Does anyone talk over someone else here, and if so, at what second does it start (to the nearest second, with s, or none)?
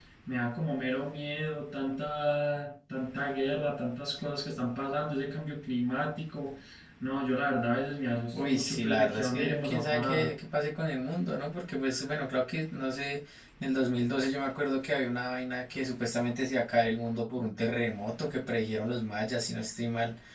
8 s